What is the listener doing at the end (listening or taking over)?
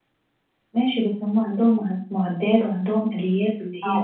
taking over